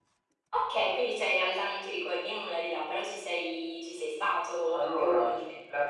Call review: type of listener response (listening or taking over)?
taking over